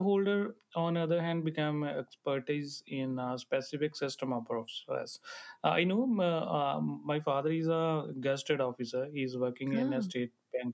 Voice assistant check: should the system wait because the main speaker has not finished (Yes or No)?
Yes